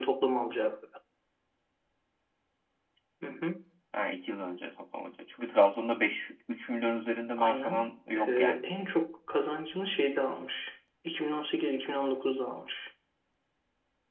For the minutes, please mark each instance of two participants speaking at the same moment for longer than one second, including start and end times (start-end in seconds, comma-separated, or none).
7.4-8.7